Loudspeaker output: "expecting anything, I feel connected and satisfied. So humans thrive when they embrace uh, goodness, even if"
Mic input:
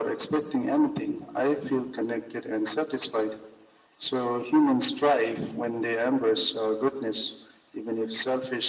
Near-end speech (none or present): none